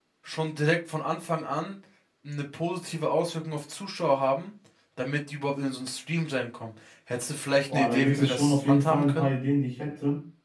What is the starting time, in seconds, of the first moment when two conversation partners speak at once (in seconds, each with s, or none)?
7.7 s